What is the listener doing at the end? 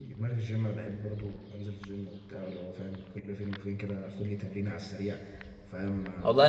taking over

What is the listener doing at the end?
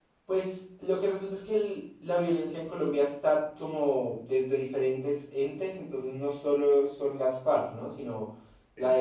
listening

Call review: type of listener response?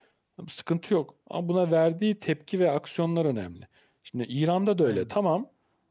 listening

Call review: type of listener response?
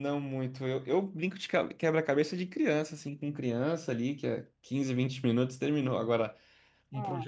listening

